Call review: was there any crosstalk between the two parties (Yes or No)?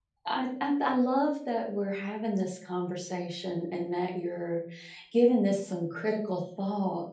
No